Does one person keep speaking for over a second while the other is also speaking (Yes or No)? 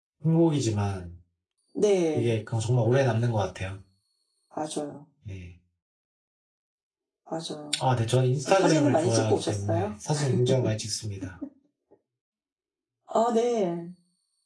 Yes